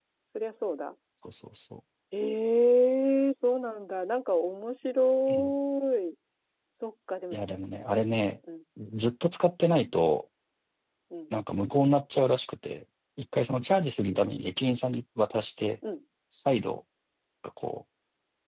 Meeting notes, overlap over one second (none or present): none